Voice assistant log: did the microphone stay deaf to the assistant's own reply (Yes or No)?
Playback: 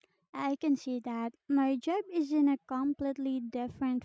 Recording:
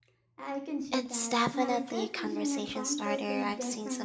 No